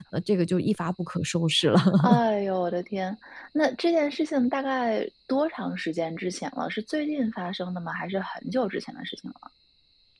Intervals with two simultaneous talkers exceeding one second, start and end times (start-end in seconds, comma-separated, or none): none